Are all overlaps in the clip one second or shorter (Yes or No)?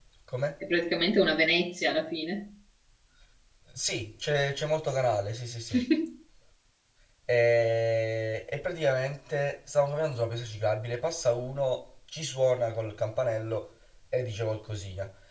Yes